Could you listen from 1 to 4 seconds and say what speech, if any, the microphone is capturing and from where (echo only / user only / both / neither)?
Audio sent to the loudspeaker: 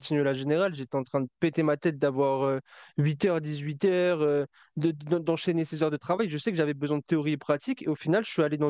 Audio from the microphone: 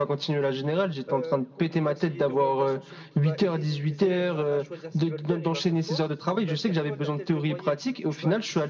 both